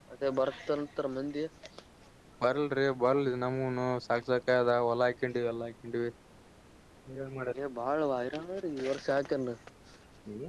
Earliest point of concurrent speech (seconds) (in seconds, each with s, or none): none